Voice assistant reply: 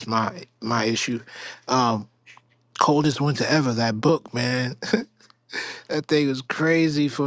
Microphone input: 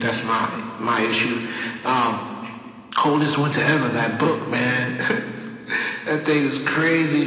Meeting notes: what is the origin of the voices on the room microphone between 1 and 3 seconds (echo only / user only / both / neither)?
echo only